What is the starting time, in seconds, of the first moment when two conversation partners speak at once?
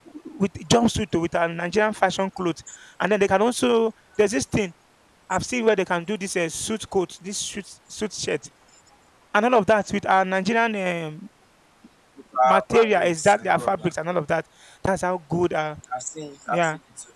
12.4 s

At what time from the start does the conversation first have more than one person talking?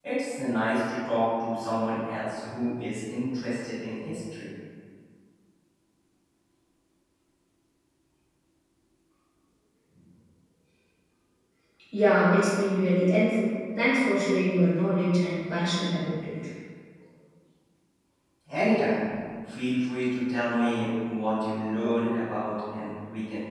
none

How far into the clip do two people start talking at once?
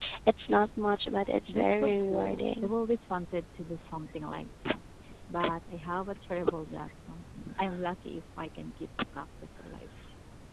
1.5 s

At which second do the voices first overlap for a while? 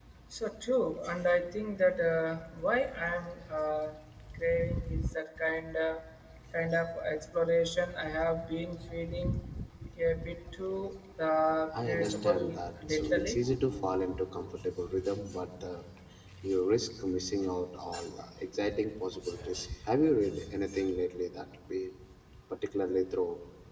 11.7 s

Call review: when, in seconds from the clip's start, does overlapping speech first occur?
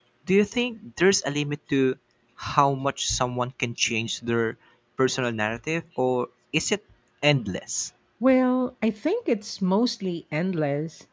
none

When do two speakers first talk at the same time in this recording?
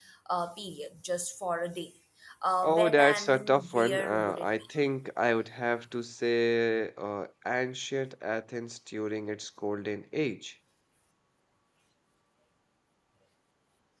2.6 s

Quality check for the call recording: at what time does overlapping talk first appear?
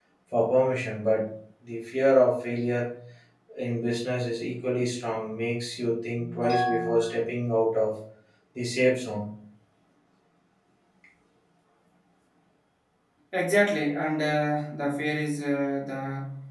none

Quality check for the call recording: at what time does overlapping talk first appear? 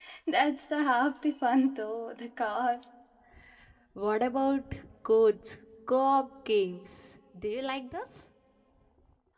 none

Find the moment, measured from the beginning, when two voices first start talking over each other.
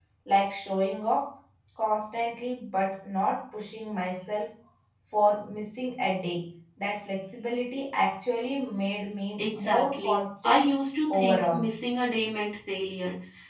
9.4 s

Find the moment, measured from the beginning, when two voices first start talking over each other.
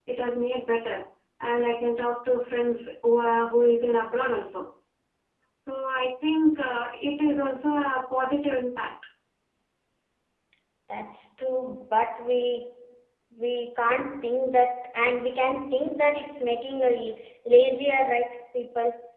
none

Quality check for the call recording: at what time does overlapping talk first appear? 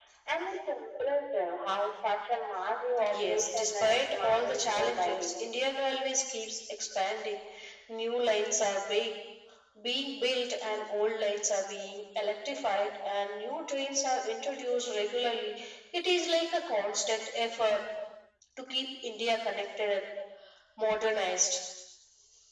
3.0 s

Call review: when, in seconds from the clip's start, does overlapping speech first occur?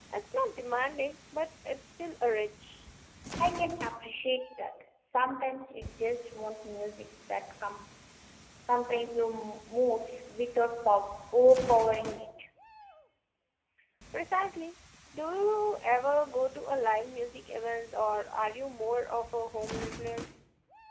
none

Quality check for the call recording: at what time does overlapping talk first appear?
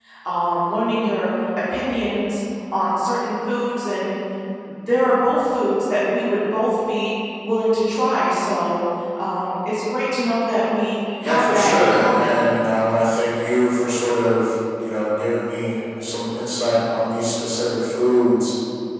11.2 s

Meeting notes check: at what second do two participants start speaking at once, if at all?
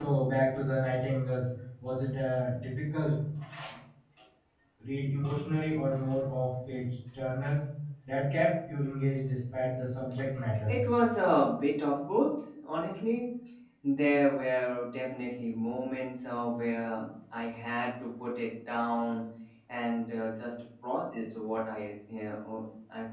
none

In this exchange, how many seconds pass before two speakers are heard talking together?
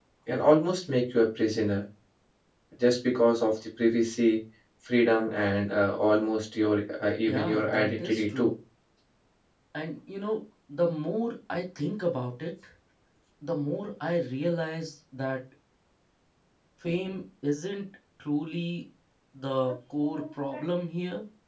7.3 s

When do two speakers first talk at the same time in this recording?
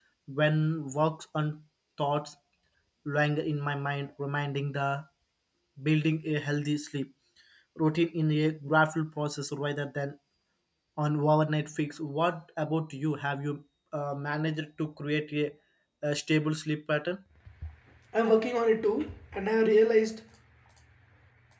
none

